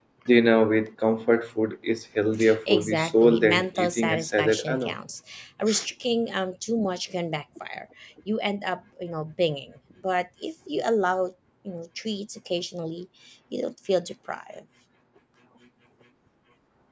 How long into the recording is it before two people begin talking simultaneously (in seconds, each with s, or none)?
2.7 s